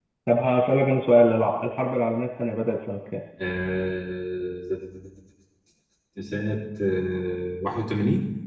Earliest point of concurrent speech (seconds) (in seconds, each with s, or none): none